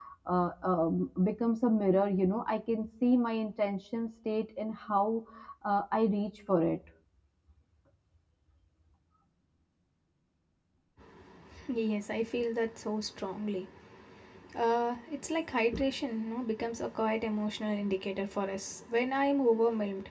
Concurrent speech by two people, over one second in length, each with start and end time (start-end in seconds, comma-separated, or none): none